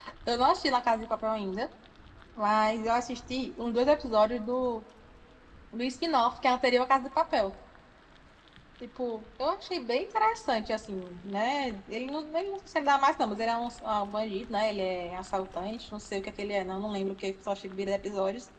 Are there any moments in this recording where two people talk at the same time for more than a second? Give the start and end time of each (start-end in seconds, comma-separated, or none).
none